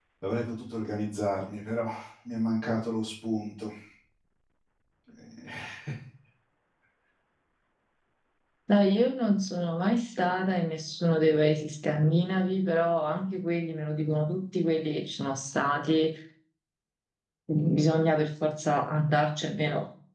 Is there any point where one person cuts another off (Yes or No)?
No